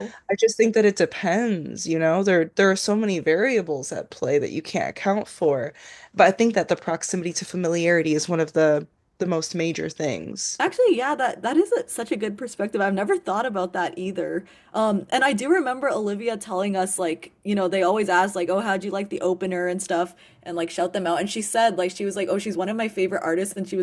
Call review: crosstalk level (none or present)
none